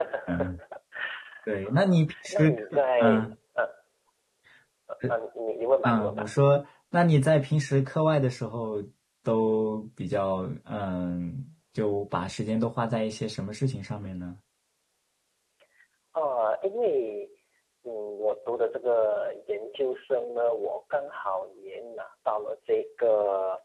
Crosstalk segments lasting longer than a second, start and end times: 1.6-3.3

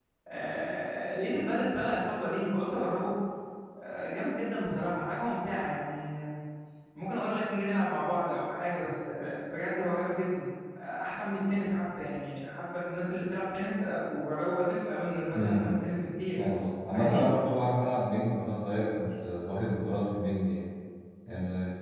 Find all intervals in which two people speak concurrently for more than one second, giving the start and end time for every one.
none

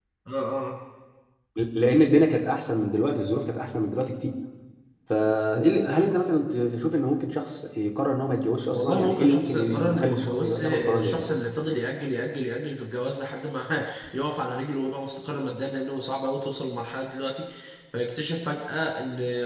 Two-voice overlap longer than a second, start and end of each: 8.7-11.3

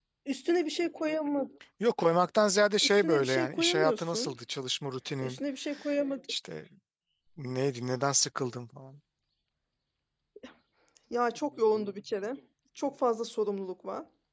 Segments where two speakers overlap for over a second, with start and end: 2.8-4.3

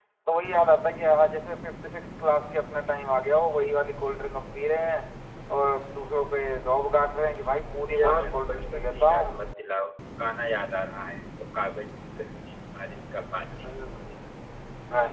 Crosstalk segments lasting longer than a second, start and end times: 7.9-9.3

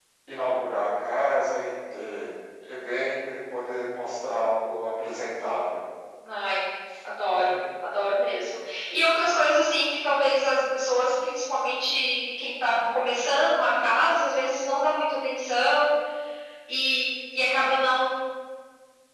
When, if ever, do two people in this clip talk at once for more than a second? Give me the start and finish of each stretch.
none

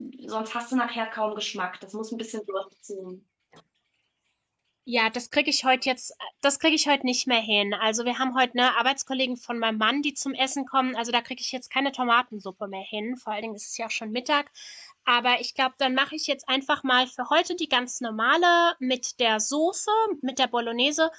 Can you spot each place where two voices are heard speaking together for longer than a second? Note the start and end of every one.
none

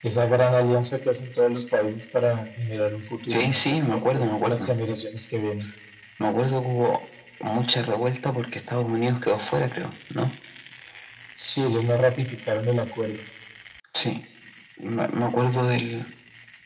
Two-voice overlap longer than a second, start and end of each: 3.3-4.7

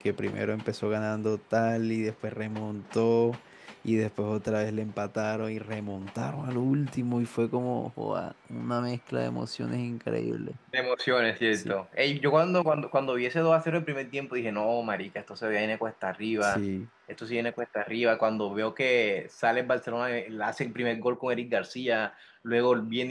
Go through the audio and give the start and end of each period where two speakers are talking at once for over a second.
none

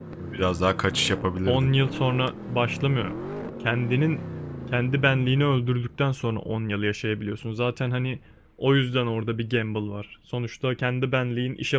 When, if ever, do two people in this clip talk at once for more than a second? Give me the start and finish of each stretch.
none

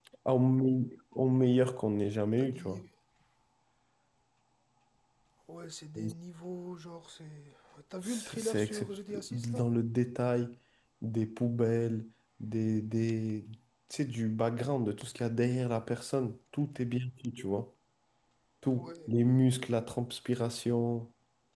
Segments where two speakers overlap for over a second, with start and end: 8.0-9.6

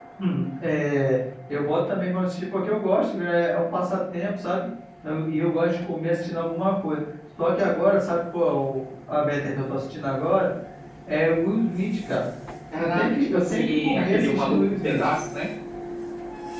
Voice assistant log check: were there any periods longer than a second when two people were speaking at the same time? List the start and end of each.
12.8-15.1

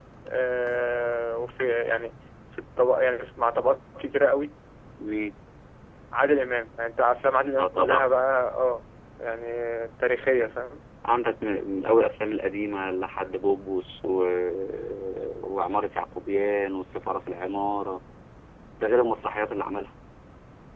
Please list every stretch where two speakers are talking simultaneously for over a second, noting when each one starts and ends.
none

